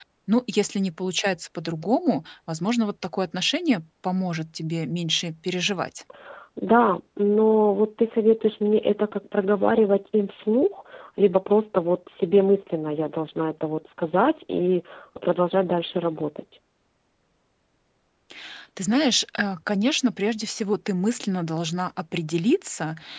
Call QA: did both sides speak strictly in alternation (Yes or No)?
Yes